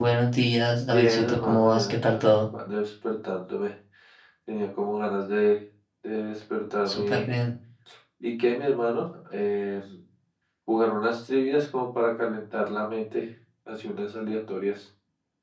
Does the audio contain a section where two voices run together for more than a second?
Yes, from 0.9 s

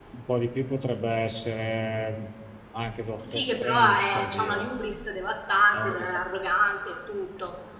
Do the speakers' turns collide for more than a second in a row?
Yes, from 3.3 s

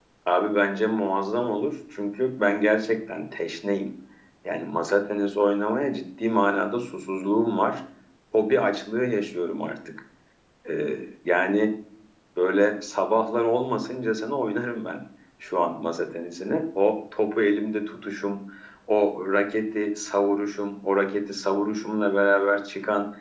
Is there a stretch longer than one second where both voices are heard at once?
No

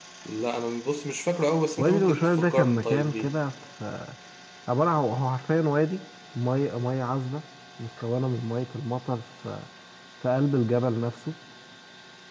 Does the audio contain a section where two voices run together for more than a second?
Yes, from 1.8 s

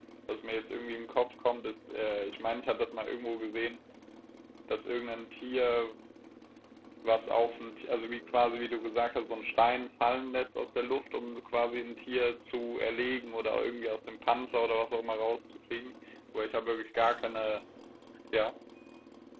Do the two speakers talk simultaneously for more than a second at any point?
No

